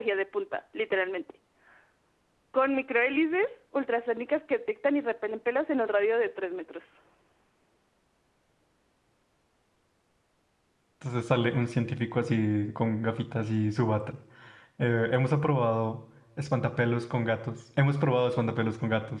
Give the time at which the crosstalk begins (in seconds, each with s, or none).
none